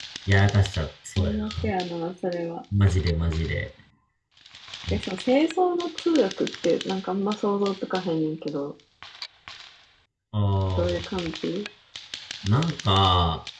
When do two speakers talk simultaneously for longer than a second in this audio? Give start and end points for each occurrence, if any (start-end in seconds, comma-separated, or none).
none